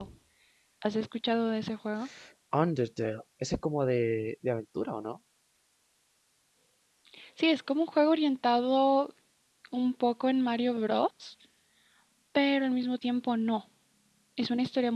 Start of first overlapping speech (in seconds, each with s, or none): none